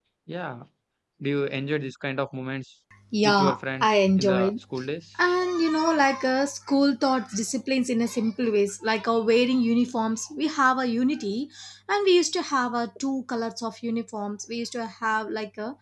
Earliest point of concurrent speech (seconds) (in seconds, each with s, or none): 3.1 s